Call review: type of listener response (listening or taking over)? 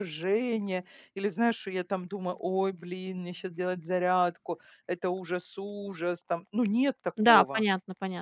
taking over